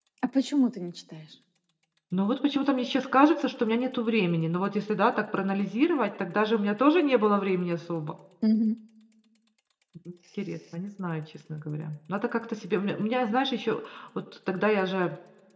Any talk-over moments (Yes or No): No